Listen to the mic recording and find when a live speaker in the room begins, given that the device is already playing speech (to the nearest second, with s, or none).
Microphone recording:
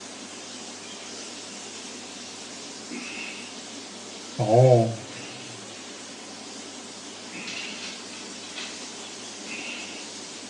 4 s